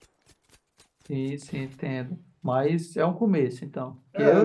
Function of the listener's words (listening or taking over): taking over